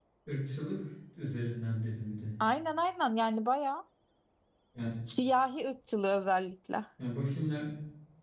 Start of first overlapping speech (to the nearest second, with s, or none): none